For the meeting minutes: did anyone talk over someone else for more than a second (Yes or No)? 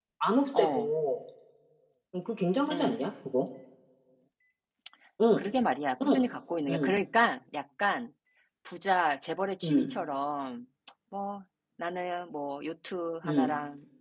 No